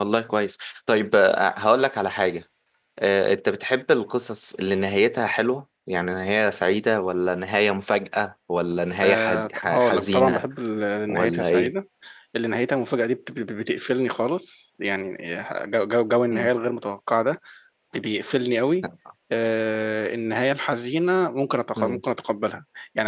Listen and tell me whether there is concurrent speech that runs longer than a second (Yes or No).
Yes